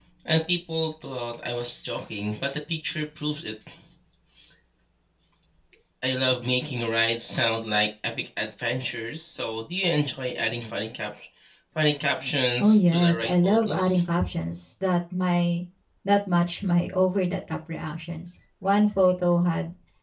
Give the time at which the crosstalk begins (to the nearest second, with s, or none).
13 s